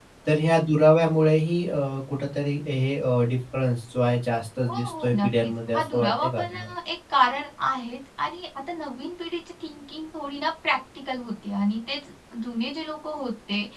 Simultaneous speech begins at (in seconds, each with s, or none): 4.6 s